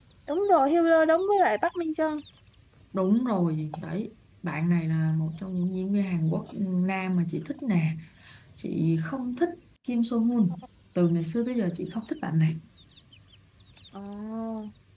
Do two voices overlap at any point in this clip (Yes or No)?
No